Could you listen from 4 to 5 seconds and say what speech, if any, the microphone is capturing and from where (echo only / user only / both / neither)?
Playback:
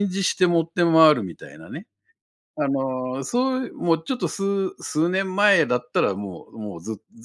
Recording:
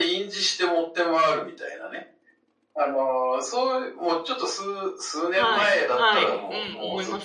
echo only